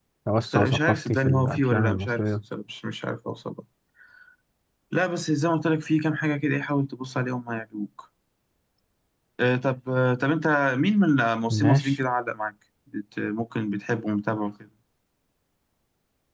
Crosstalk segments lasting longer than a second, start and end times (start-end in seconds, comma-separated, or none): 0.5-2.3